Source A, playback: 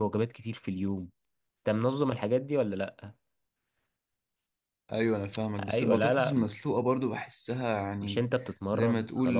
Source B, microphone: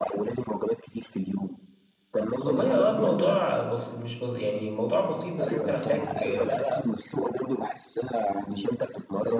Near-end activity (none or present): present